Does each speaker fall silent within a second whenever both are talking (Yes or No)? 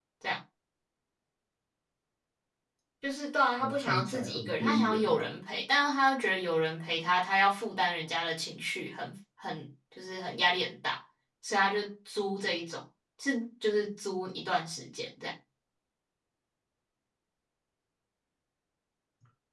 No